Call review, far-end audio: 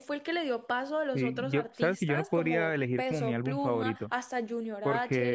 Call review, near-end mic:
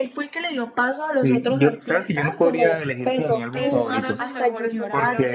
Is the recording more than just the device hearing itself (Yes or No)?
Yes